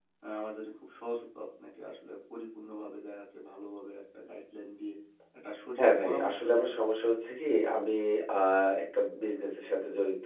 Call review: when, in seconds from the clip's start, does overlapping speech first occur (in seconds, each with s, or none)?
5.8 s